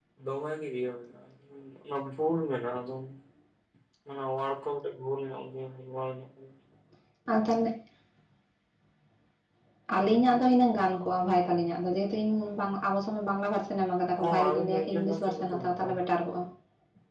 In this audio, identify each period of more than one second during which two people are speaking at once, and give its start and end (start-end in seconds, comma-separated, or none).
14.2-16.0